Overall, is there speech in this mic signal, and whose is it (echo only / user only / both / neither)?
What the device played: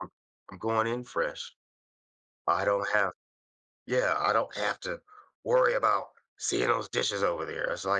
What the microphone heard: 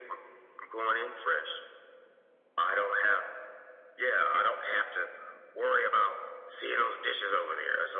echo only